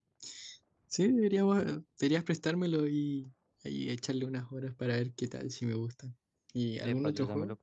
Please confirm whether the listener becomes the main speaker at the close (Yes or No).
Yes